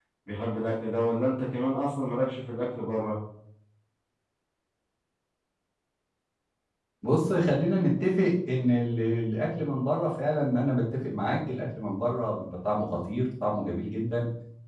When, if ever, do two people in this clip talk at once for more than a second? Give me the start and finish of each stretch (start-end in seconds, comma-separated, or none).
none